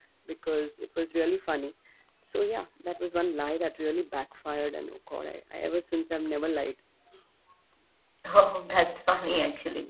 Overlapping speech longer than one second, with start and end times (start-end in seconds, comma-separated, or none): none